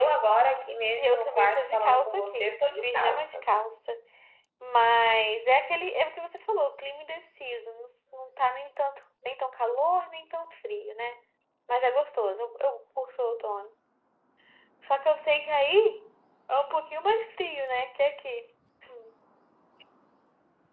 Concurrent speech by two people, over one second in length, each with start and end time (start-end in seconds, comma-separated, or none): 1.0-3.5